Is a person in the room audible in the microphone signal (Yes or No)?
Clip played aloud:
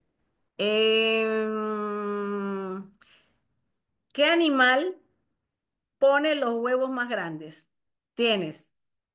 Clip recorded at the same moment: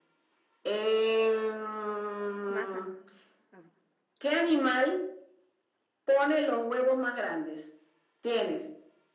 Yes